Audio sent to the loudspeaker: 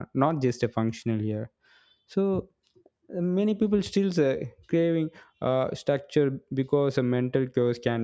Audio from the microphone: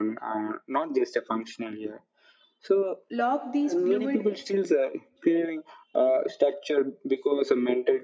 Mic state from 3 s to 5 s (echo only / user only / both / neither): both